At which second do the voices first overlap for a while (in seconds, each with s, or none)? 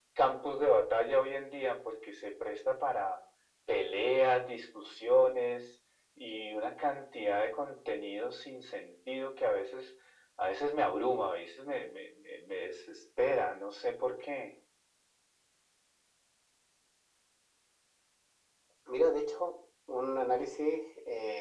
none